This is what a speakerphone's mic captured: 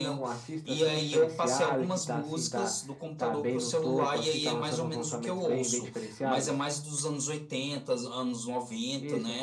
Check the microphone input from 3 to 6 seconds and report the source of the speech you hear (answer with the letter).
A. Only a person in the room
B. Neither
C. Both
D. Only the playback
D